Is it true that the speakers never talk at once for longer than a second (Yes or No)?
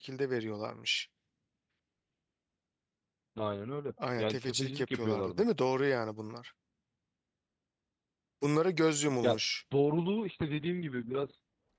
No